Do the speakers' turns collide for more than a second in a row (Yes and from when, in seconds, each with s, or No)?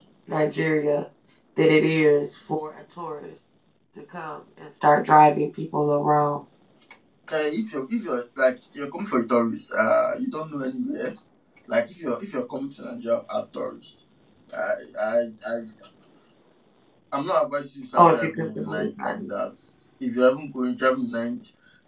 Yes, from 18.0 s